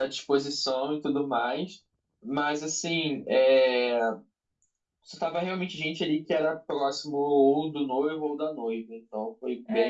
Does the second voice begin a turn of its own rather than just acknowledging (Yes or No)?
Yes